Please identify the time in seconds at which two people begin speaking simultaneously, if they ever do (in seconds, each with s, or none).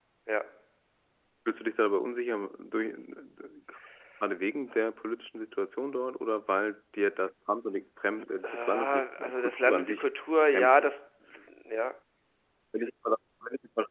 8.4 s